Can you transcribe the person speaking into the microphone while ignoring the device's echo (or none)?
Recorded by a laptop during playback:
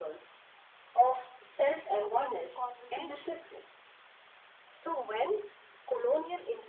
a global conversation